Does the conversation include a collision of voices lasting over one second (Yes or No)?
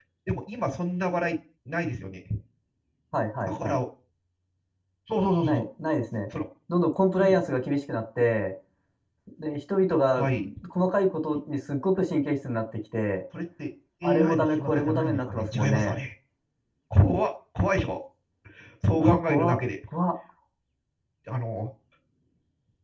Yes